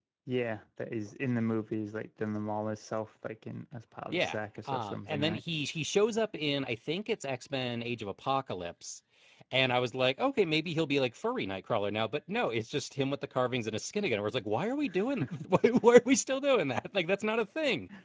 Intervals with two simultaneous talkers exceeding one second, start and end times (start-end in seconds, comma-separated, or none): 4.1-5.4